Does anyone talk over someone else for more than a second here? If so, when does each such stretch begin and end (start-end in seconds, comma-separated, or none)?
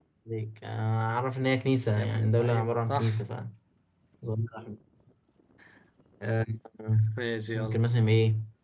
2.0-3.2